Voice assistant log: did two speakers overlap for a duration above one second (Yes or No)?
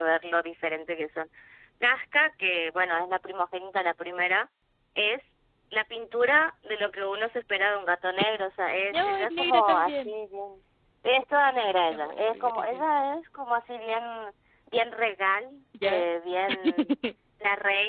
Yes